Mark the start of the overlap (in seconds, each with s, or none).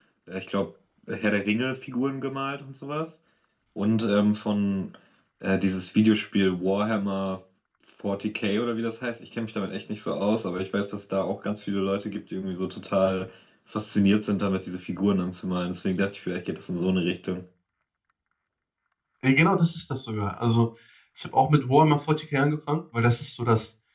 none